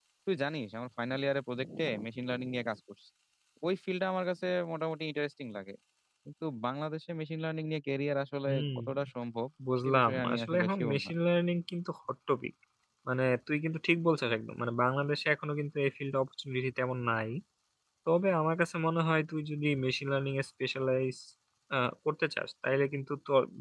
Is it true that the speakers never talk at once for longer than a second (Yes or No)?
No